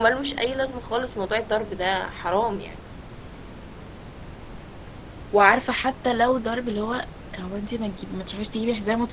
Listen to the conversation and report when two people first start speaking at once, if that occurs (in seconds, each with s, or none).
none